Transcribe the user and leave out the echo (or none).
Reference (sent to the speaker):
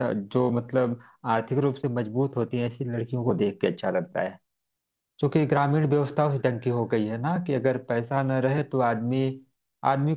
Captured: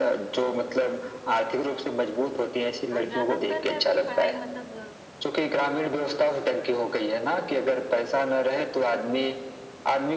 और ज्यादातर मैं अपनी पढ़ाई मतलब